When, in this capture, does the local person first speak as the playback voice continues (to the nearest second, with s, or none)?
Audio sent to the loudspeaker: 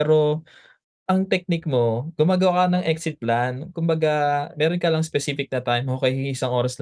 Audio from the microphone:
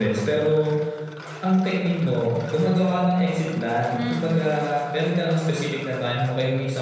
4 s